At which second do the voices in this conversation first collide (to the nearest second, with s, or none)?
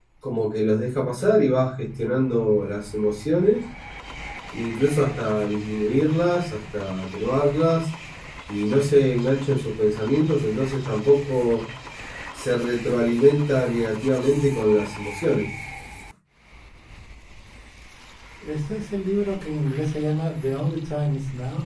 none